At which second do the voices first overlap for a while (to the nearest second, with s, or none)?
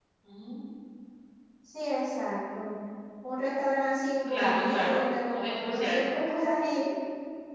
4 s